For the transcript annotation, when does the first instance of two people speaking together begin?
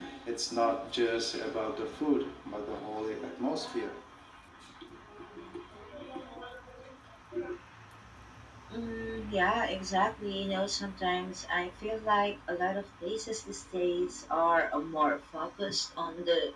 none

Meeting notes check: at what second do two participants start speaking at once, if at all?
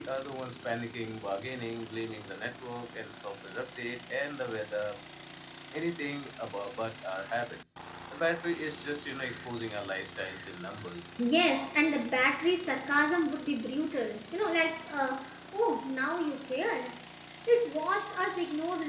none

